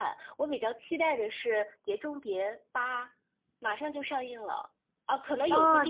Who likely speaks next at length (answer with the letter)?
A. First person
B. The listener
A